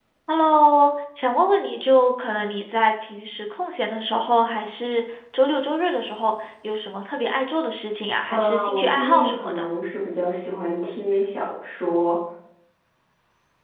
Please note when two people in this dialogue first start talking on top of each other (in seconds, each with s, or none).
8.3 s